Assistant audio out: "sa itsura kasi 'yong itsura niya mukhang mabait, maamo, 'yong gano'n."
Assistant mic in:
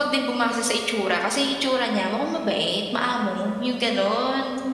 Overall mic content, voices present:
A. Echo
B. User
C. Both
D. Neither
A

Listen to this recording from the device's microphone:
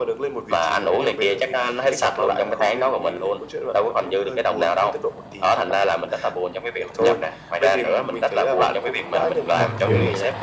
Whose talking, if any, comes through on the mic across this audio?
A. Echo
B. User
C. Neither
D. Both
D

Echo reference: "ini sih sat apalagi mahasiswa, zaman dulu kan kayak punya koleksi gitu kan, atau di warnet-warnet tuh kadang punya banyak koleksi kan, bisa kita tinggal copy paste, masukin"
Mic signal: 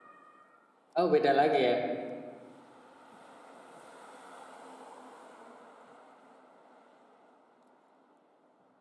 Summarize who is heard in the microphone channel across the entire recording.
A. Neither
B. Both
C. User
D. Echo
C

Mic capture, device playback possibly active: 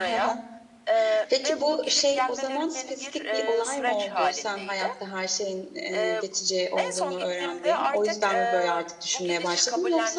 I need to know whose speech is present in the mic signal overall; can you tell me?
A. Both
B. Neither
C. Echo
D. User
A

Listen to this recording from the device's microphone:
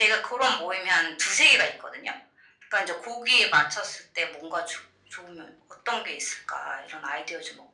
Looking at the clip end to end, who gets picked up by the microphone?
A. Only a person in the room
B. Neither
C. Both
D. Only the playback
D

